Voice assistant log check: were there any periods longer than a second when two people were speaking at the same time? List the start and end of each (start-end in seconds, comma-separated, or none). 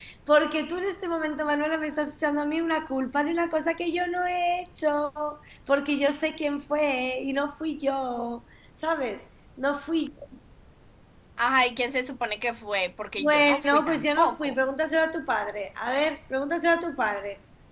13.2-14.6